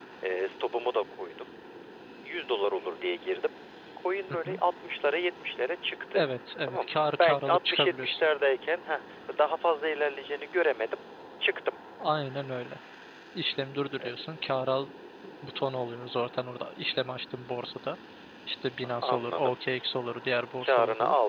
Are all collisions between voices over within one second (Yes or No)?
No